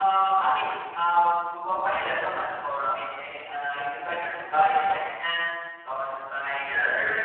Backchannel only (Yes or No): No